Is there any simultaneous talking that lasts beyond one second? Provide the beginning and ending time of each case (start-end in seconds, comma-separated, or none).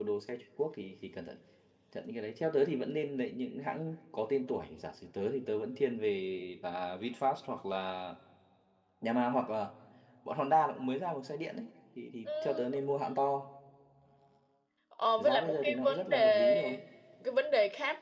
15.2-16.8